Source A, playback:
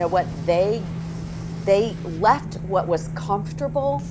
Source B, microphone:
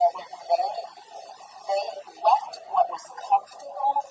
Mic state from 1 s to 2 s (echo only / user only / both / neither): echo only